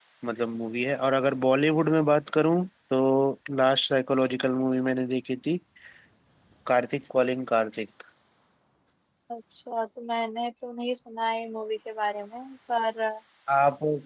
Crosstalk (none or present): none